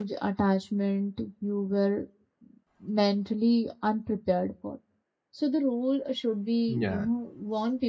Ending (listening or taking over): listening